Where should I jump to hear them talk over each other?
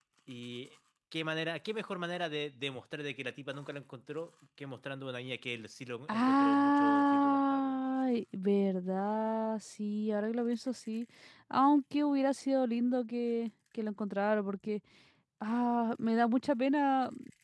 6.1 s

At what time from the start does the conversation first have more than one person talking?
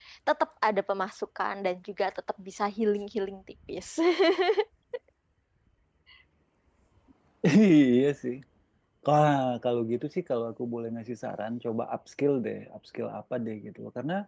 none

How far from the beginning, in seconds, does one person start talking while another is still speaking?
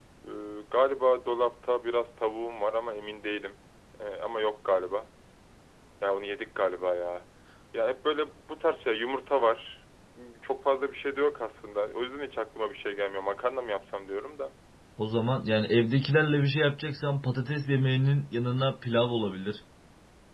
none

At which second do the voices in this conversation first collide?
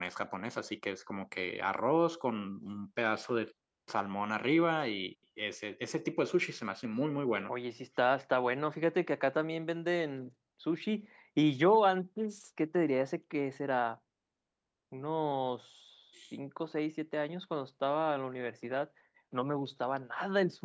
none

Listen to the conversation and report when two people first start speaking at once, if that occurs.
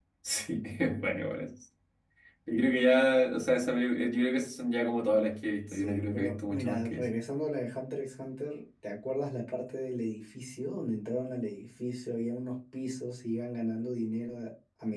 5.7 s

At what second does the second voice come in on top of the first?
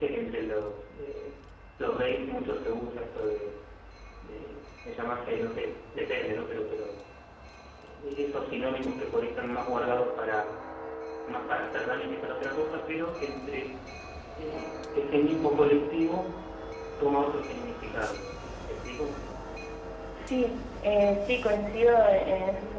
none

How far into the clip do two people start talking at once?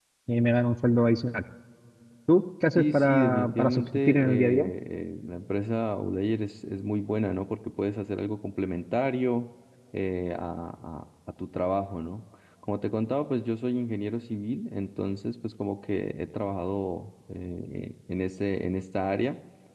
2.8 s

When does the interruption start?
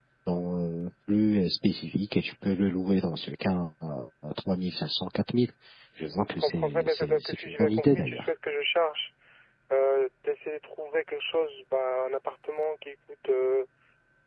6.3 s

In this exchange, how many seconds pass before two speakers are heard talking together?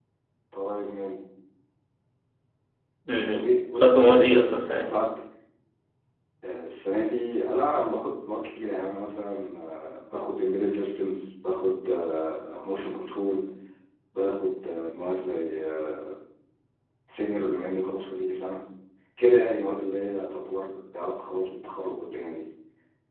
3.3 s

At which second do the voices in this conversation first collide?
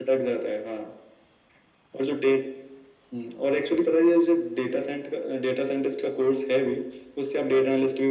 none

